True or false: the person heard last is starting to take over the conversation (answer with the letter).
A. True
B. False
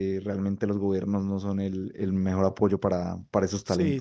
A